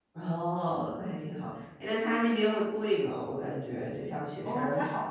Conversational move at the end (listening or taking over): taking over